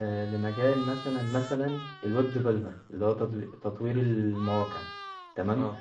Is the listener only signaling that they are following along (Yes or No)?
Yes